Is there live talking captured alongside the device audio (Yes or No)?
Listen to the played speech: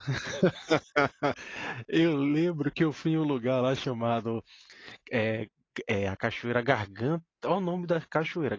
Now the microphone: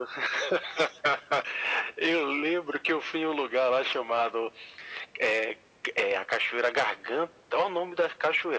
No